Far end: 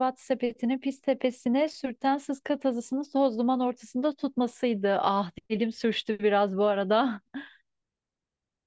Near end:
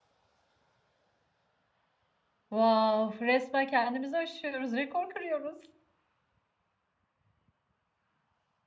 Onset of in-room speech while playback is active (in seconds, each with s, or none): 2.5 s